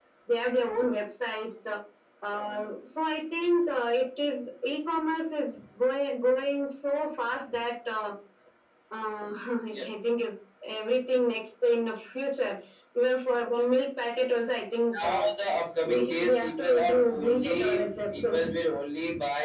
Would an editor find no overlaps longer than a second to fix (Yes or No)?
No